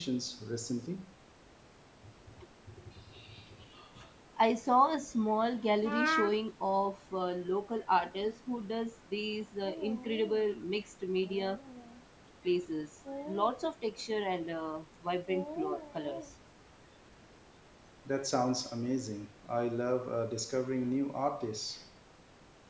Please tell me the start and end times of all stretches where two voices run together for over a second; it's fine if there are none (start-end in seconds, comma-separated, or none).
none